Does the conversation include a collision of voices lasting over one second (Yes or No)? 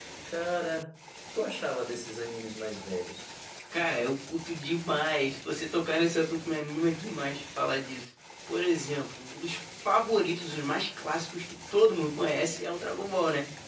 No